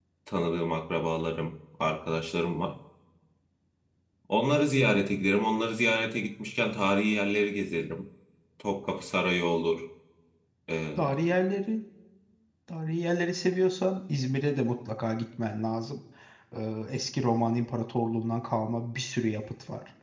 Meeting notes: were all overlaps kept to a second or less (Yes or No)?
Yes